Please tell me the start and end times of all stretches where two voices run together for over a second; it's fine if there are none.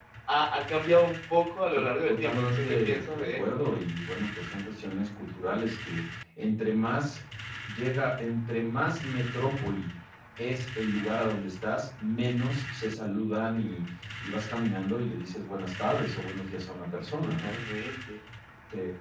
1.7-3.4

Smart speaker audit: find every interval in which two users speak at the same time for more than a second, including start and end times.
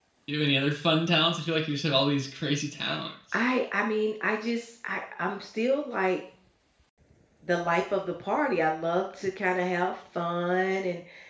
none

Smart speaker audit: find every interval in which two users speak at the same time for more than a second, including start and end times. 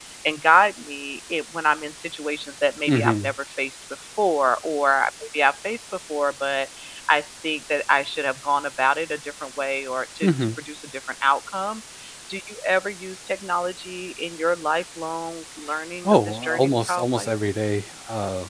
16.0-17.3

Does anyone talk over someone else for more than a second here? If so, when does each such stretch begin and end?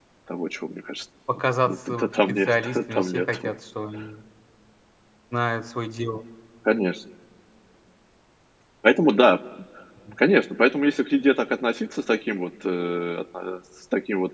1.7-3.4

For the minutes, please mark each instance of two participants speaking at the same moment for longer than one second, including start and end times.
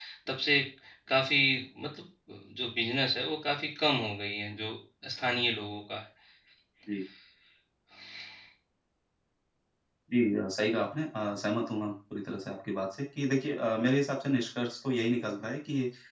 none

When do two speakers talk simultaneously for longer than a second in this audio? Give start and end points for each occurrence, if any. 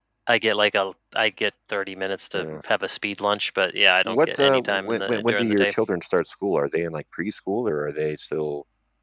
4.0-5.7

